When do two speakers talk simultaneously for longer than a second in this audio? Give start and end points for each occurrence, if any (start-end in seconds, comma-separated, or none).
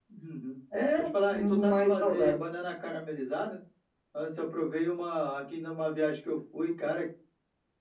1.0-2.4